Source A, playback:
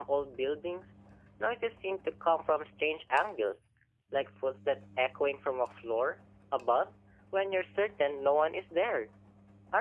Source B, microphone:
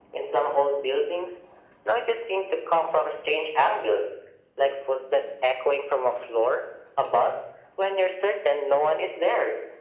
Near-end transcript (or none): none